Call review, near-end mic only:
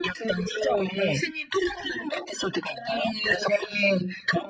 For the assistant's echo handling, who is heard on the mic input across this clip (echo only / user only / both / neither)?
echo only